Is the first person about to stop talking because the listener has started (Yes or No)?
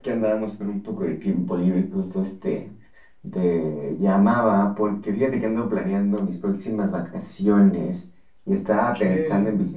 No